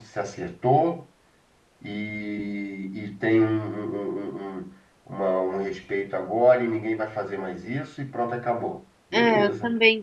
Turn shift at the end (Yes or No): Yes